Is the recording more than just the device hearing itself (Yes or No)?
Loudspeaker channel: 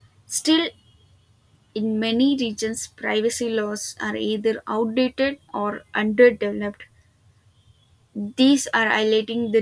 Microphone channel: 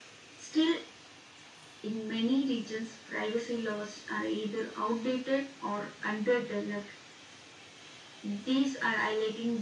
No